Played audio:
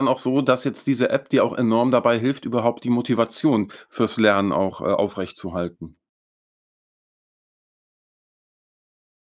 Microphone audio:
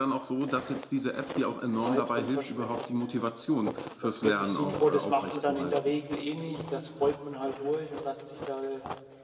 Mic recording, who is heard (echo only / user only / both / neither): both